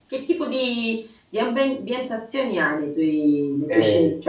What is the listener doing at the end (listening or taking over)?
taking over